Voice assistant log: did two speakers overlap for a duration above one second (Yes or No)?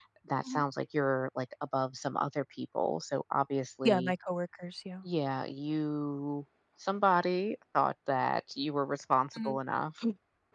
No